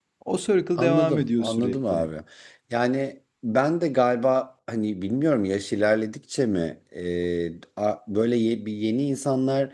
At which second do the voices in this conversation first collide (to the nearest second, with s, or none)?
1 s